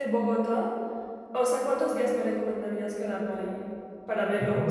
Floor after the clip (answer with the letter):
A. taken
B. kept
A